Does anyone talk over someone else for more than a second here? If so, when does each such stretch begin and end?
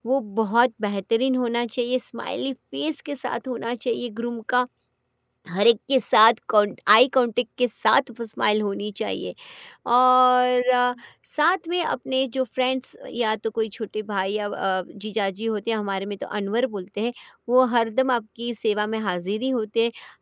none

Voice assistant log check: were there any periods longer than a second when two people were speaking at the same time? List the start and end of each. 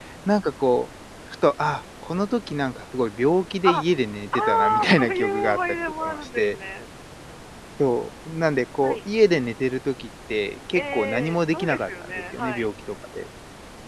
4.3-6.6, 10.8-12.7

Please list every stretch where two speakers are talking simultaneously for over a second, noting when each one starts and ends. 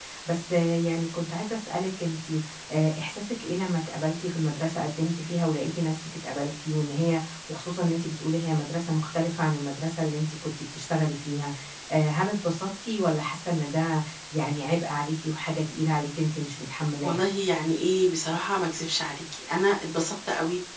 none

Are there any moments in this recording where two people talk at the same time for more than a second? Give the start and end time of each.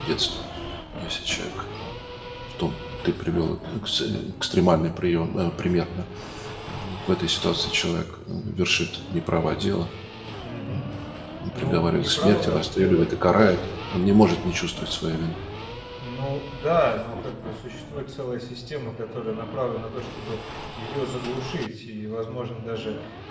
11.6-13.1

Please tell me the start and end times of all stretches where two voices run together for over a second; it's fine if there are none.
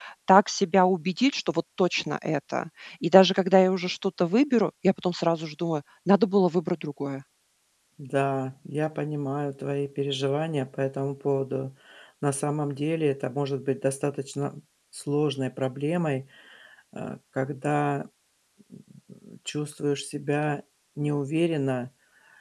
none

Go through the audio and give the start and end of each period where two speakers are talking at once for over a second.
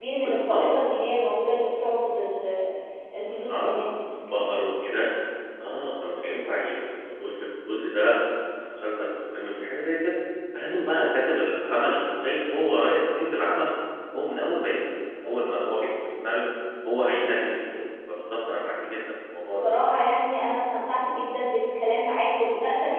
none

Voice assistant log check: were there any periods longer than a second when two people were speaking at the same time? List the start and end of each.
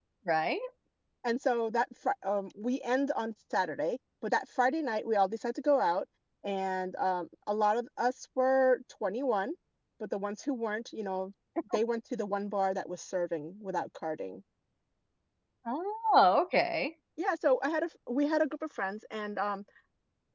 none

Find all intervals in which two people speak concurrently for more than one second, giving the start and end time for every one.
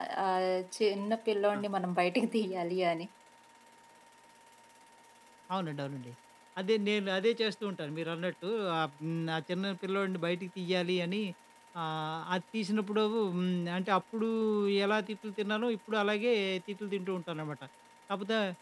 none

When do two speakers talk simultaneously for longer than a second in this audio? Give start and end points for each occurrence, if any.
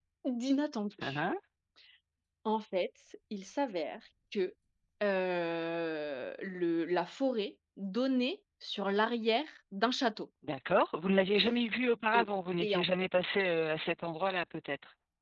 none

